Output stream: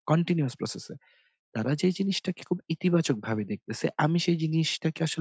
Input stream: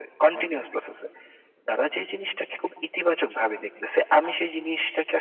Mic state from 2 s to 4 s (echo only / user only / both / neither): echo only